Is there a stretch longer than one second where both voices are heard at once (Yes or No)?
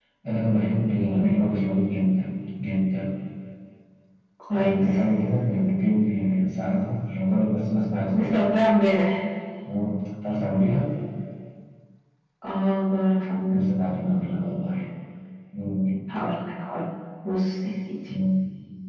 No